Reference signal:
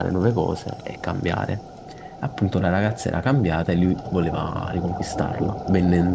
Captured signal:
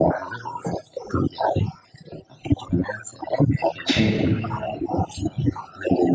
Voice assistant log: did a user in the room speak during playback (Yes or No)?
Yes